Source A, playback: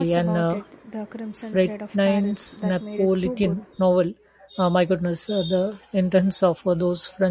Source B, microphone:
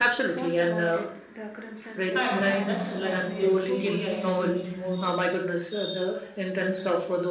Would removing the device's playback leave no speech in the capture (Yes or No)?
No